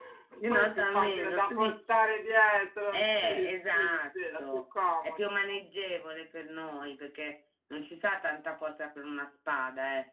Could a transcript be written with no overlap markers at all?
No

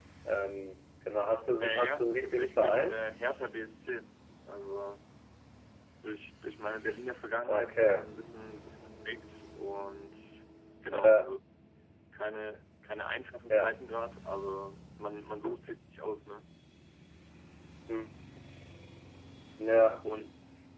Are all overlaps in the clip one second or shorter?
No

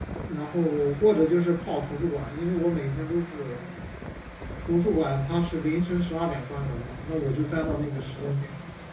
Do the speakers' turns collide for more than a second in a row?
No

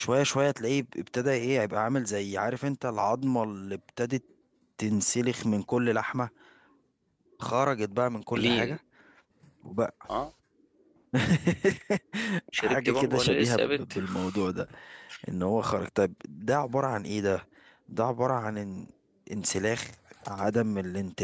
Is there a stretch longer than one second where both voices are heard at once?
Yes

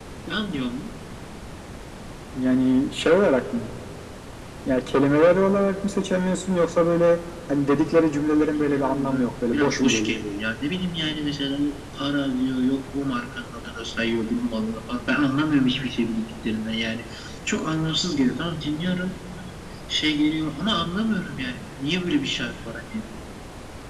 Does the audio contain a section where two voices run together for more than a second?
Yes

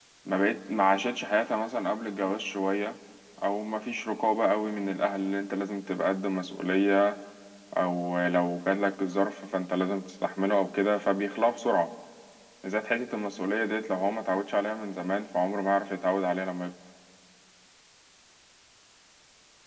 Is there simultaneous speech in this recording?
No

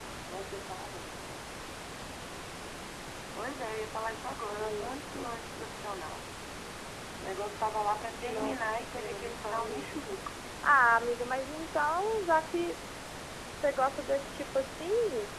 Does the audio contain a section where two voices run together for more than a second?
Yes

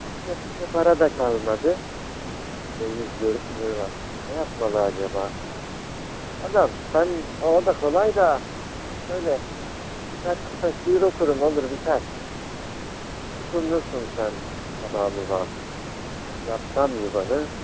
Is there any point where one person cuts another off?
No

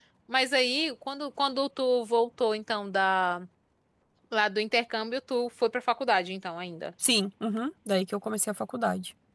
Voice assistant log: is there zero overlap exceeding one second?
Yes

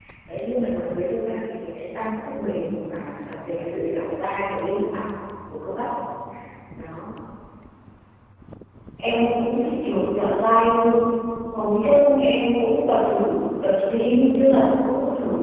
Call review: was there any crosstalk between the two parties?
No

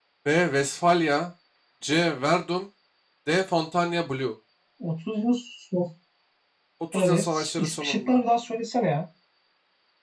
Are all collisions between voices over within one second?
No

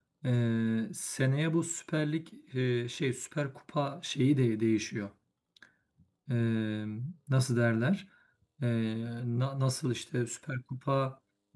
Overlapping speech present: No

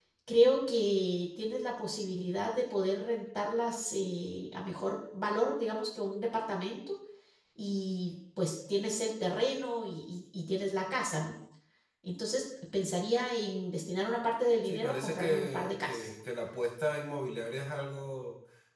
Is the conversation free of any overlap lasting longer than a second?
No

